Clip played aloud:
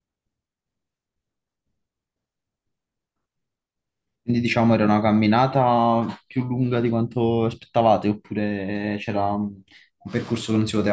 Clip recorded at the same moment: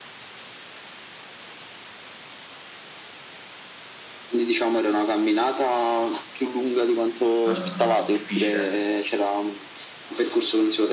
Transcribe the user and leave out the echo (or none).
eh, difficile.